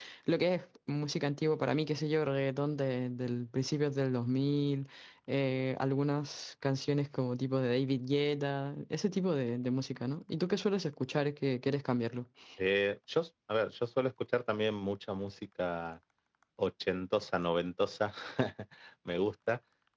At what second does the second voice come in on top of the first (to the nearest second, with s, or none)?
none